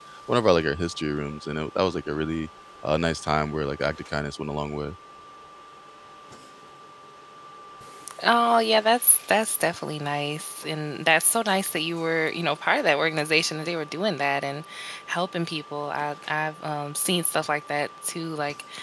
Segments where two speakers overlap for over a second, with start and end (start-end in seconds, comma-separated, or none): none